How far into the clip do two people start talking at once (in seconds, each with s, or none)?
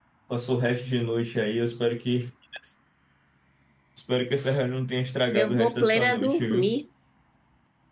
5.3 s